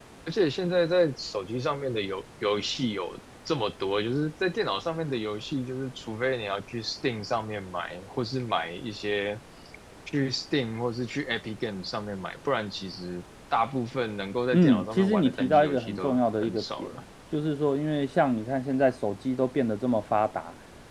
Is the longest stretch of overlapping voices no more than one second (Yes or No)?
No